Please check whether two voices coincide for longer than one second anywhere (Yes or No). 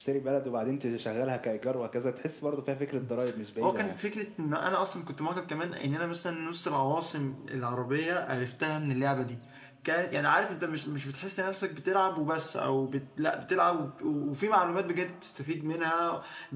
No